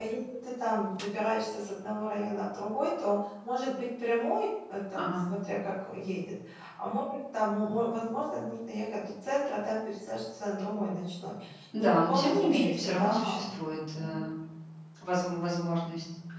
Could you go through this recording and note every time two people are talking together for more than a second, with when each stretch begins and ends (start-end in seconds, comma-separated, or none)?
11.8-13.5